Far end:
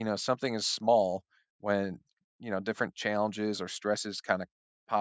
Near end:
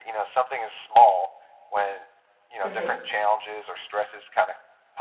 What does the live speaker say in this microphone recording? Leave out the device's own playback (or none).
Mhm.